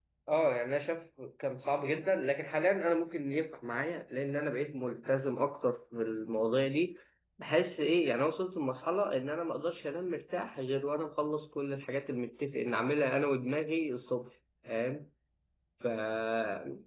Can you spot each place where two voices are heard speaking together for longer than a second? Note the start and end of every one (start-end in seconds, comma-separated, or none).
none